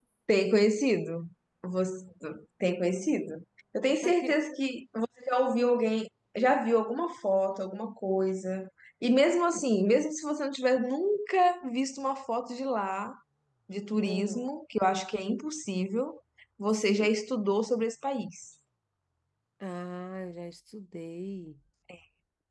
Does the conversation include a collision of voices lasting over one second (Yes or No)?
No